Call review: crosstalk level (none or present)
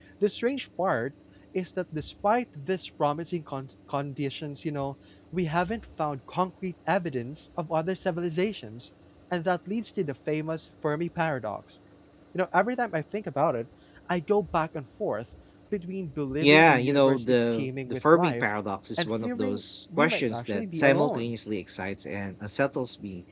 present